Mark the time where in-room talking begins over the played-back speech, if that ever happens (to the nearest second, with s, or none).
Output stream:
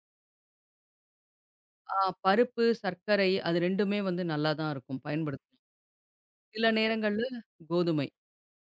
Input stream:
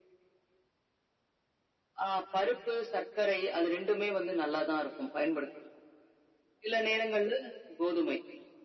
none